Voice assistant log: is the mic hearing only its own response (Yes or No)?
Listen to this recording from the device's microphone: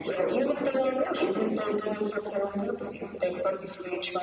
Yes